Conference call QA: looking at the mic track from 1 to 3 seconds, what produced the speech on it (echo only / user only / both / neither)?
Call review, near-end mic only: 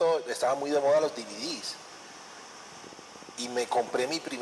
echo only